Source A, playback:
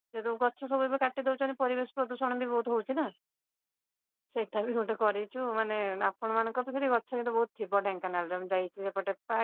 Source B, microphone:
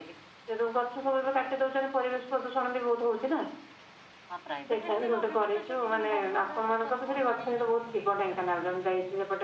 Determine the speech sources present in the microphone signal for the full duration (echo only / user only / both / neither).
both